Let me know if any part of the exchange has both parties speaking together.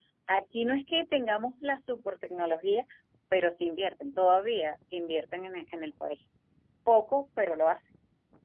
No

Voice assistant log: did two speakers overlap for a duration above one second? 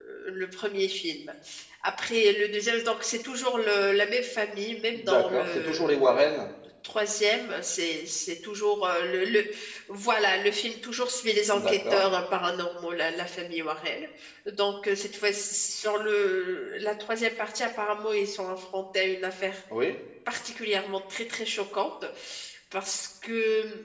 Yes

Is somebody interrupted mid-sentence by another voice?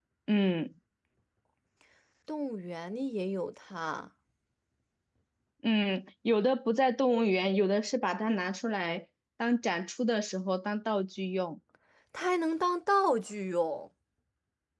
No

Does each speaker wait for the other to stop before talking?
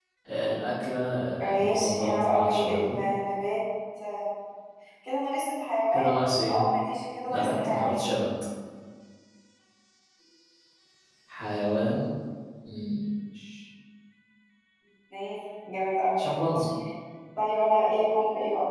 No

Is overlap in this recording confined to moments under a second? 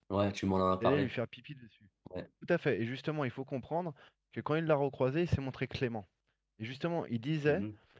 Yes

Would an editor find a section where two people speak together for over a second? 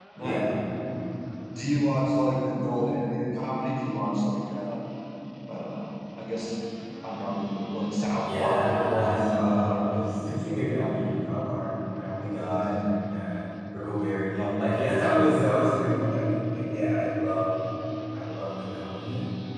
Yes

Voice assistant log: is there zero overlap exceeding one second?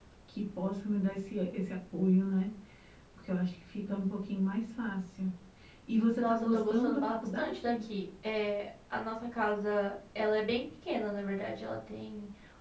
No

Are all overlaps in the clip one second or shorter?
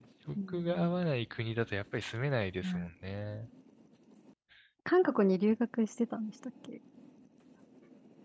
Yes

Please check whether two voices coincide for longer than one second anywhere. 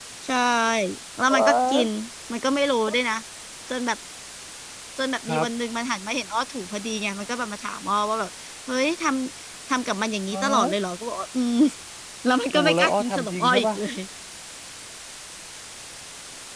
Yes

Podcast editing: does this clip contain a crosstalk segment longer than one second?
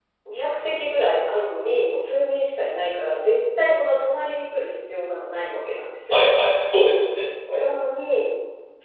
No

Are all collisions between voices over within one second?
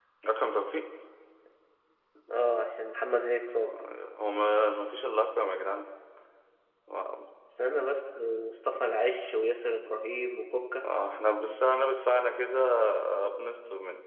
Yes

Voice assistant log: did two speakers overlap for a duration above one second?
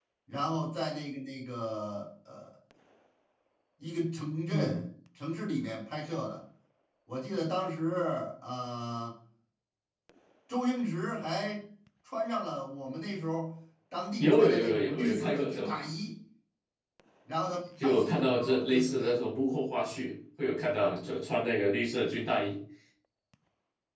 Yes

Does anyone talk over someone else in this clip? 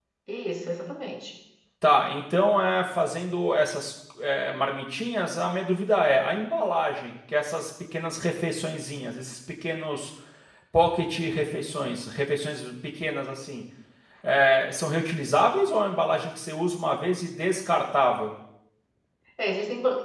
No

